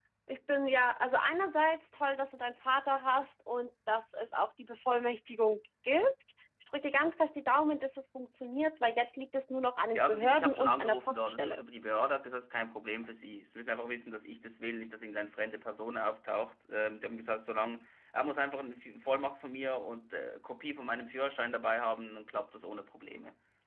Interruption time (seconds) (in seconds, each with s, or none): 9.9 s